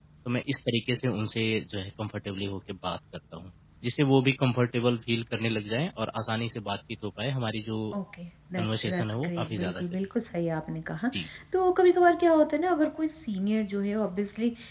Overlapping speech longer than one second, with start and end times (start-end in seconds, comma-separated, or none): 8.6-9.8